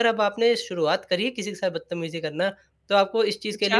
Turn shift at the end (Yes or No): No